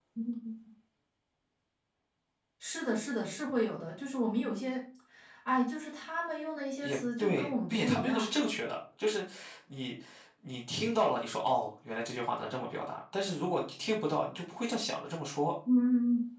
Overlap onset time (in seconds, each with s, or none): 6.8 s